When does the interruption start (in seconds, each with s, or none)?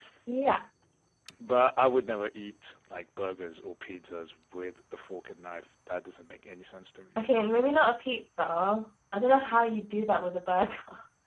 none